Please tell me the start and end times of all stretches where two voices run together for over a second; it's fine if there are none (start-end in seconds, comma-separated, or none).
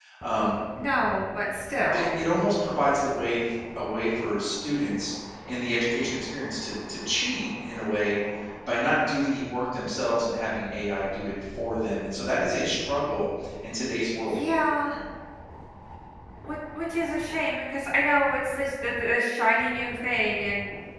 none